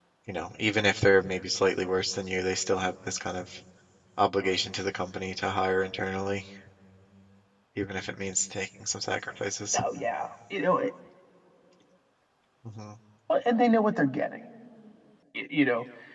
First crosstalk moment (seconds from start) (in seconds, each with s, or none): none